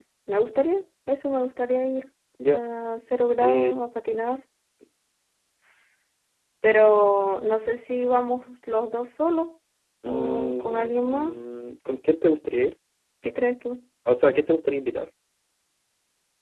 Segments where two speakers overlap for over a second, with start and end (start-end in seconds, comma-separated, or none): 10.0-11.3